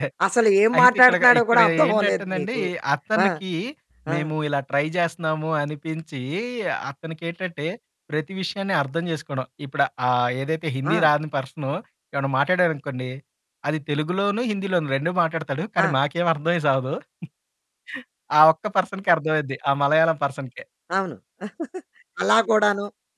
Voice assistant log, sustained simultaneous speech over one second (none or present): present